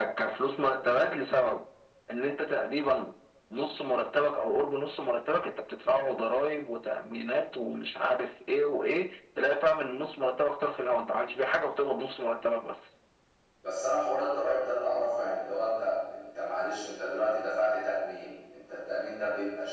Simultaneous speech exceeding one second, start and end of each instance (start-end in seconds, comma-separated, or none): none